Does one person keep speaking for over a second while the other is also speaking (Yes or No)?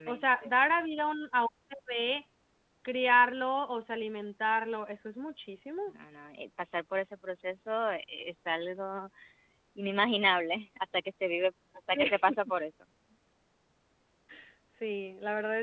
No